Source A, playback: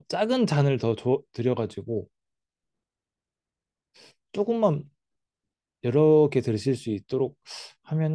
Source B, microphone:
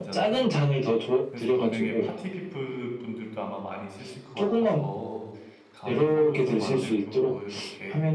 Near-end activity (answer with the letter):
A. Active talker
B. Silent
A